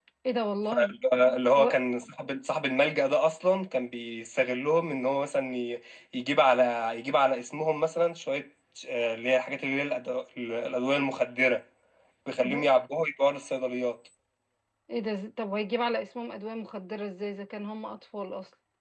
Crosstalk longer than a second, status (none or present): none